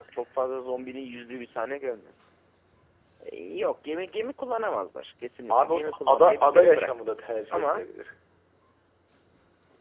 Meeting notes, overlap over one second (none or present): present